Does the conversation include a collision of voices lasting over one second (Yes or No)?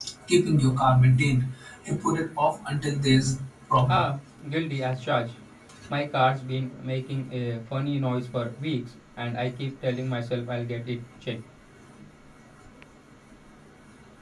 No